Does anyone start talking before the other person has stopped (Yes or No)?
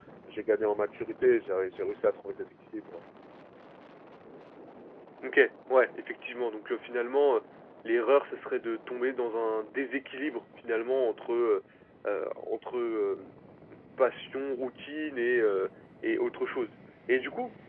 No